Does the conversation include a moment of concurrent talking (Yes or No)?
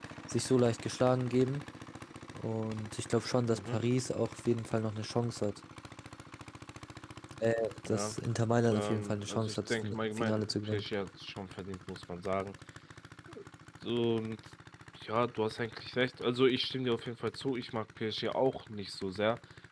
Yes